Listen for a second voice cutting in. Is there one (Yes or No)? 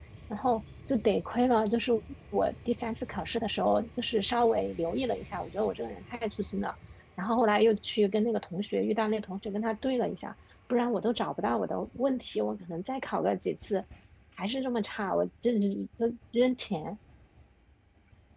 No